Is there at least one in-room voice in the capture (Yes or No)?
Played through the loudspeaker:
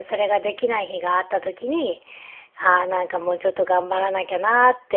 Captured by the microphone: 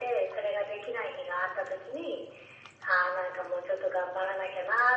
No